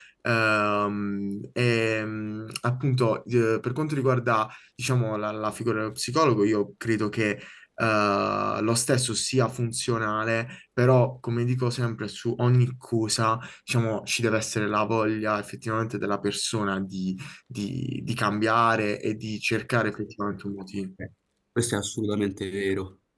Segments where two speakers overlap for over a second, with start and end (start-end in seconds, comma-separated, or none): none